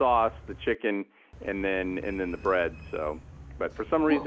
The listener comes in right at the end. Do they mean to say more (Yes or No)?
No